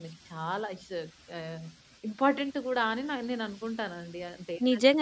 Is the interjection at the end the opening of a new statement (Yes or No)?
Yes